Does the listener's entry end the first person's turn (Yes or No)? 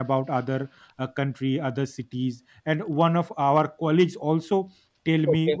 No